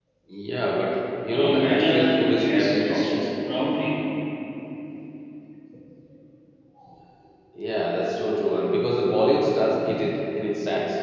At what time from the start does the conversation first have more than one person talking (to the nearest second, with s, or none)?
1 s